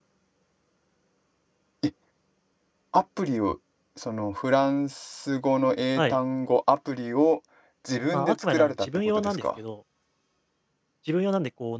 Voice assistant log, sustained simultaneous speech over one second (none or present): present